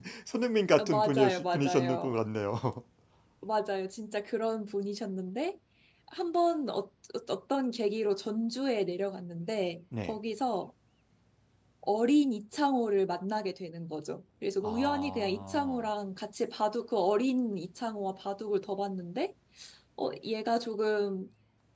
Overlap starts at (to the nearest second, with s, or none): 1 s